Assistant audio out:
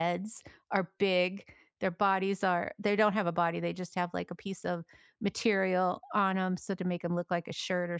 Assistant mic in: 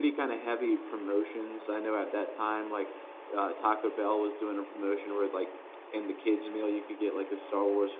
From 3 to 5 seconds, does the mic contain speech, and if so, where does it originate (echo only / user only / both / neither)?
user only